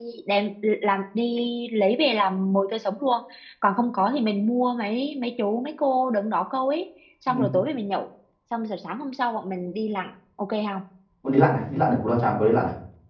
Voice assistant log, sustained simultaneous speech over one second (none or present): none